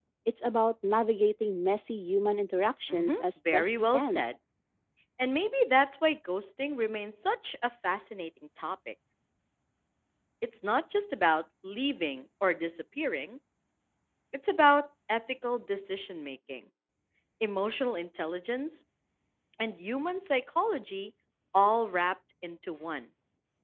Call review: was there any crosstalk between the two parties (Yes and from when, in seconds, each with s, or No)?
Yes, from 2.9 s